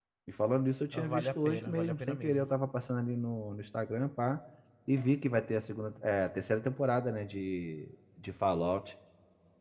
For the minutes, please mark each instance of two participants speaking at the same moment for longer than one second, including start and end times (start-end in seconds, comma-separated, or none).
0.9-2.5